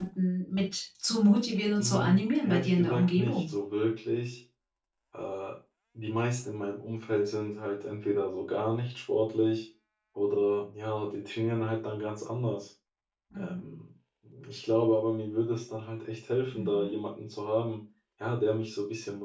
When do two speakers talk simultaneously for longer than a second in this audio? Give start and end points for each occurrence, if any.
1.8-3.5

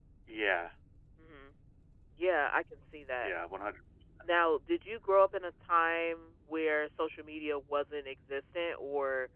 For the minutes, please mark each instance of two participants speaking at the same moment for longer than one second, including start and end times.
none

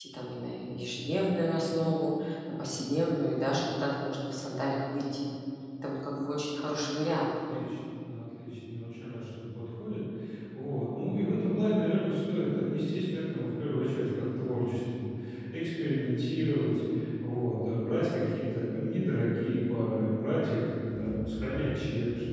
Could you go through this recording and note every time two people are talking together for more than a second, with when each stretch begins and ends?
none

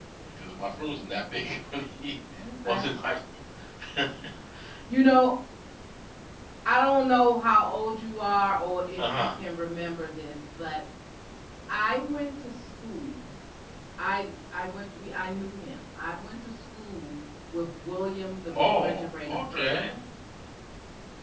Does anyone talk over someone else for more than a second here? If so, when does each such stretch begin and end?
18.5-19.8

